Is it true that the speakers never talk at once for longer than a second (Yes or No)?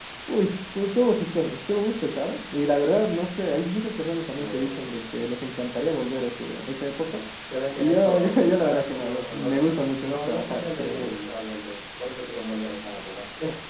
No